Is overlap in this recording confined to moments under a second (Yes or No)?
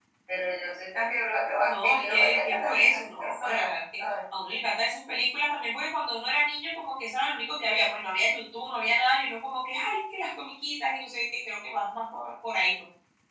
No